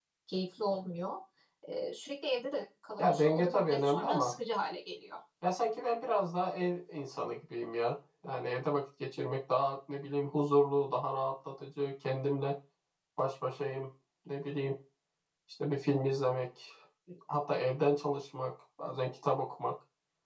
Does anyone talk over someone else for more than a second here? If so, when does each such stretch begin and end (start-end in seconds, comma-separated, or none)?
3.0-4.4